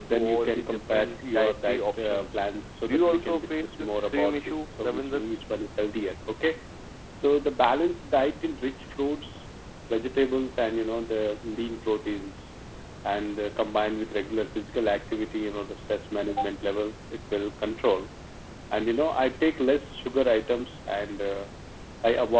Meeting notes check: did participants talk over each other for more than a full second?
Yes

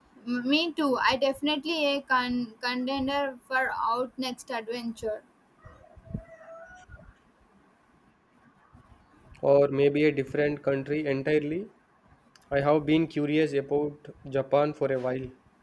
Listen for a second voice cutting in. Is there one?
No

